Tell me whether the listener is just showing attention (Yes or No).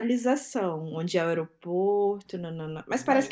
No